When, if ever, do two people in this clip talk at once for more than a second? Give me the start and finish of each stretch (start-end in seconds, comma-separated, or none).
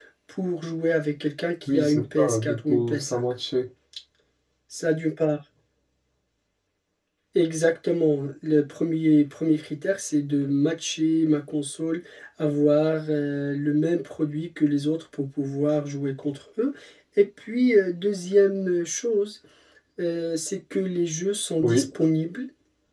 1.7-3.2